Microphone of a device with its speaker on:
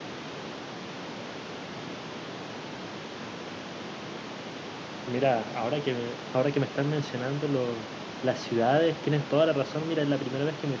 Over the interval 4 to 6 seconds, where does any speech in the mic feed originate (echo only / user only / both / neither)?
user only